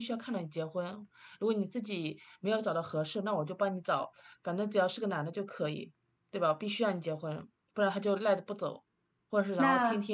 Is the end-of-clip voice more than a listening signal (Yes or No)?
No